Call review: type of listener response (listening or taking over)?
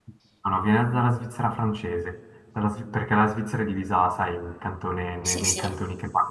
listening